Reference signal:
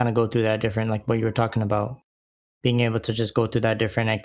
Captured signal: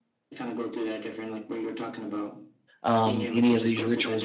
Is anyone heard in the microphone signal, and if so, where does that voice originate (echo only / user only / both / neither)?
both